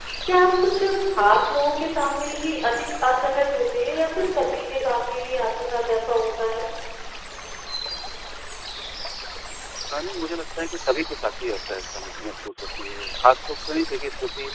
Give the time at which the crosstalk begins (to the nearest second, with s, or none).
none